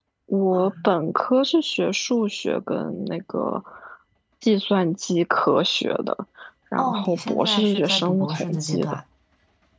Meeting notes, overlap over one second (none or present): present